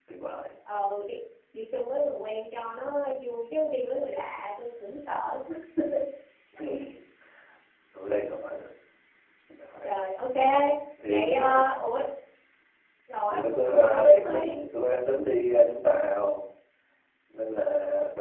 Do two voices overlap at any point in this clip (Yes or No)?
Yes